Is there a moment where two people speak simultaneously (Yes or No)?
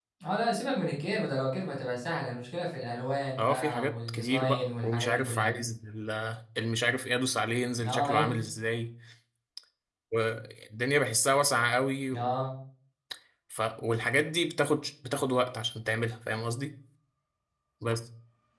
Yes